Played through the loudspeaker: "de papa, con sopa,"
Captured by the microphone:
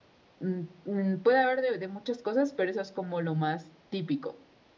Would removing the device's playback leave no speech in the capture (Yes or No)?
No